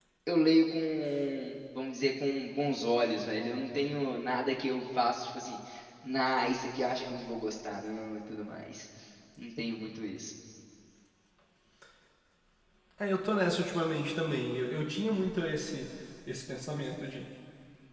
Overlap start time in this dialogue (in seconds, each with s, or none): none